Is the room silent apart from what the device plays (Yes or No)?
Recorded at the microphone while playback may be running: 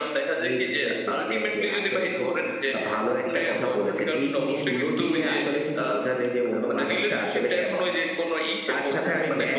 Yes